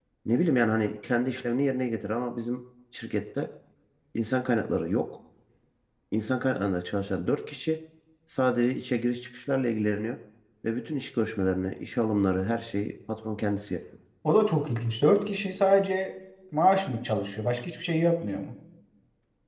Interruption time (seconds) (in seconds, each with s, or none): none